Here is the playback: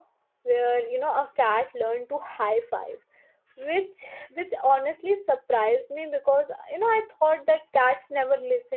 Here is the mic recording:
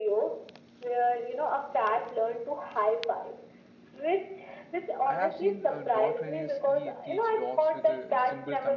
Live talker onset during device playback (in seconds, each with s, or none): 5.0 s